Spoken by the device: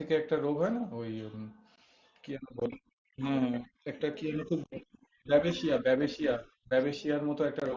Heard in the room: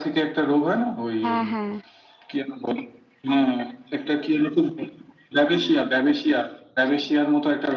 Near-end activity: present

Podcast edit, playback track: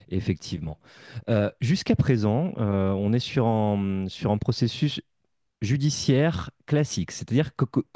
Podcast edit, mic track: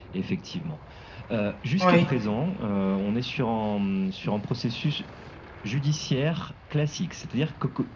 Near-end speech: present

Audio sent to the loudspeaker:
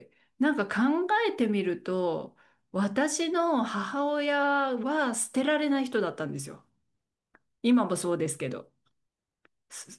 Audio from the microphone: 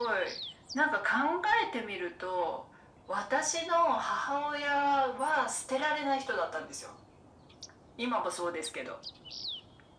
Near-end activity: none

